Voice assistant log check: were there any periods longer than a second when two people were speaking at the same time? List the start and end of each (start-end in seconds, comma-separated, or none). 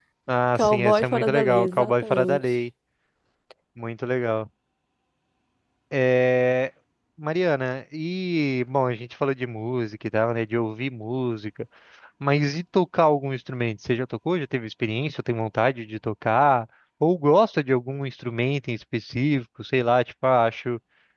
0.6-2.4